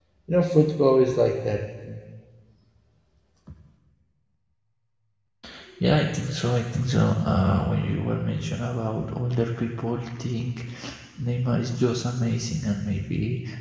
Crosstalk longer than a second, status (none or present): none